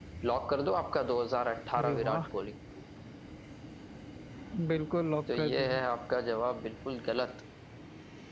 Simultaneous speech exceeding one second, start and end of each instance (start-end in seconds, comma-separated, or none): none